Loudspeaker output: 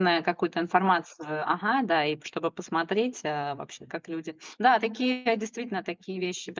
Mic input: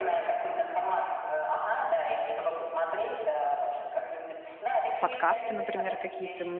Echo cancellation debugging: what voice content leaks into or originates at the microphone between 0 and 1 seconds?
echo only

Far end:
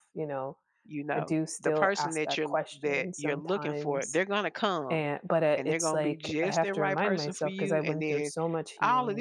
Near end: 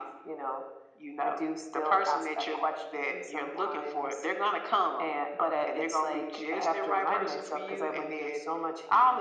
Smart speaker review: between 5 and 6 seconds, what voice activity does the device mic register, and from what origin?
echo only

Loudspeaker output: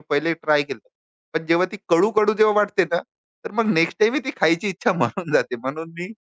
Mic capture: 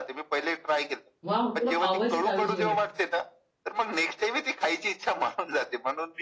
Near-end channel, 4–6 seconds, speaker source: echo only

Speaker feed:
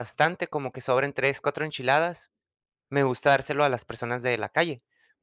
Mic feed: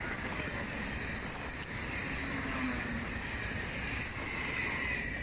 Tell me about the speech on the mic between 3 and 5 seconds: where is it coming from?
neither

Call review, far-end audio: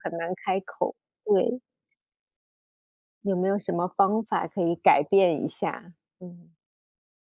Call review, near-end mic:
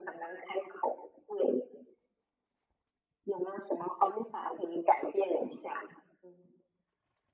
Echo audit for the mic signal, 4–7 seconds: echo only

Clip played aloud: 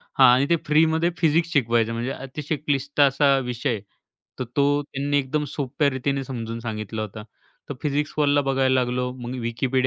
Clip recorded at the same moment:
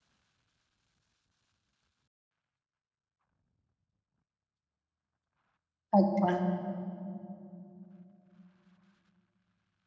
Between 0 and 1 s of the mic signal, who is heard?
neither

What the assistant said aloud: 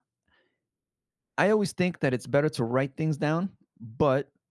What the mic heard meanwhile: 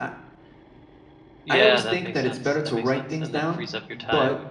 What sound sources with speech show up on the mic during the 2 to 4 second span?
both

